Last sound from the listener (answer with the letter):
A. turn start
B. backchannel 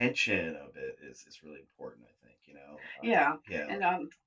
A